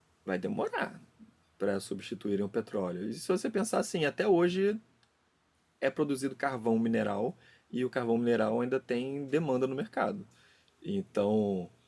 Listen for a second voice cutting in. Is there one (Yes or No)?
No